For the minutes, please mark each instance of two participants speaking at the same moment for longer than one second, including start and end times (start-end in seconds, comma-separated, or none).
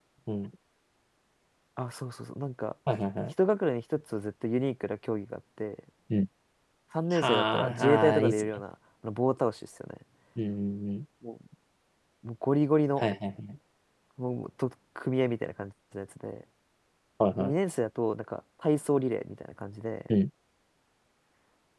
7.1-8.4